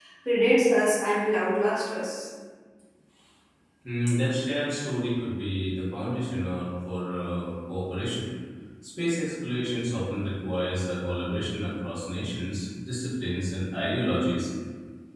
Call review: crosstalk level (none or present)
none